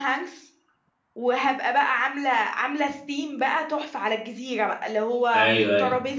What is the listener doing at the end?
listening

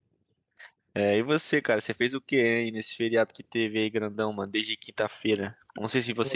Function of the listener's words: listening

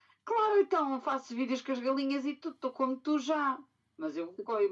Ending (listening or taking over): listening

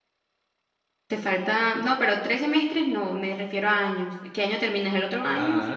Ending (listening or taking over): taking over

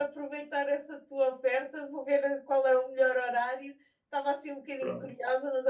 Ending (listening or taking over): listening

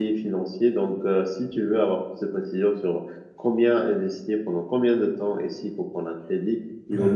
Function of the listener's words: listening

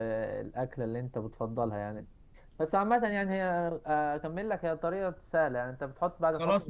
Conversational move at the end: taking over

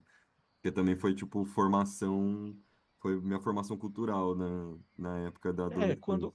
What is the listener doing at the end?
taking over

